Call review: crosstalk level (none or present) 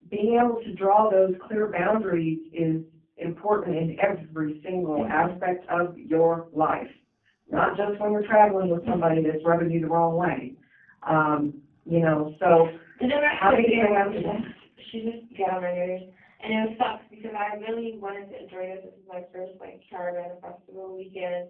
present